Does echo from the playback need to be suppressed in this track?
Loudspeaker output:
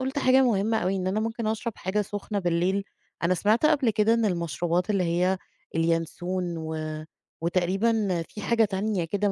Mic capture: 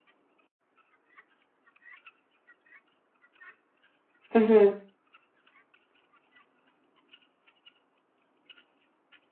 No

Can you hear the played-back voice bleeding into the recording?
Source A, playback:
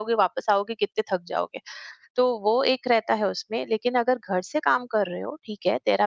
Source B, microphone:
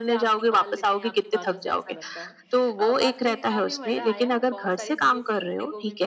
Yes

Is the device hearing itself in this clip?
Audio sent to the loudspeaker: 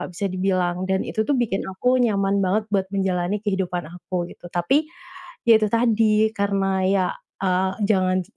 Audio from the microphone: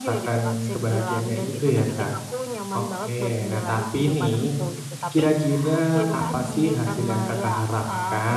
Yes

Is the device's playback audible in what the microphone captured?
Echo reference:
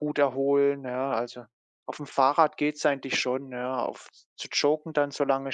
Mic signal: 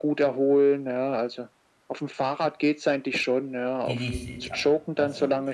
Yes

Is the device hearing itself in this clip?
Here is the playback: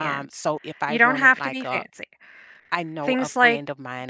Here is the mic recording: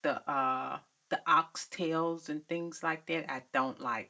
No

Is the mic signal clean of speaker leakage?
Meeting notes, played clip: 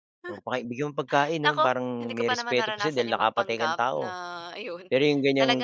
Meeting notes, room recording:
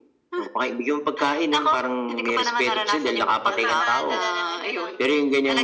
No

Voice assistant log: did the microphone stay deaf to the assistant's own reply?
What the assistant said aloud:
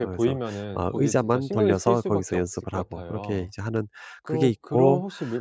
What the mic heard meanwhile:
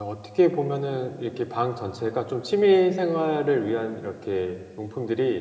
Yes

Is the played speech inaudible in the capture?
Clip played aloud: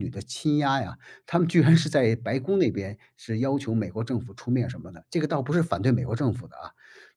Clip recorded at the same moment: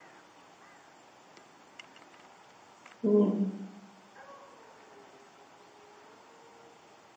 Yes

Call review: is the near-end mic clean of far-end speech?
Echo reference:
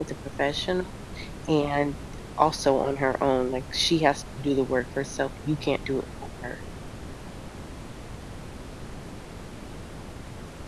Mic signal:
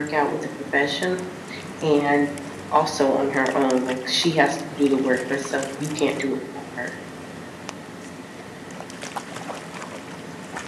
No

